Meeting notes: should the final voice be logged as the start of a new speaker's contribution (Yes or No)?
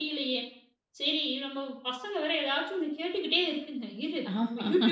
No